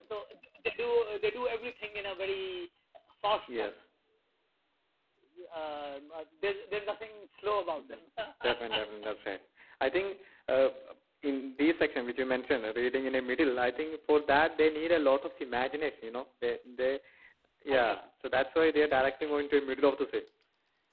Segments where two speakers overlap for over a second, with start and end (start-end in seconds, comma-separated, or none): none